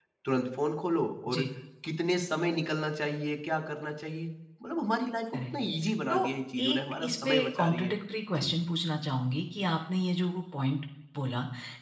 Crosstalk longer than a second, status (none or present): present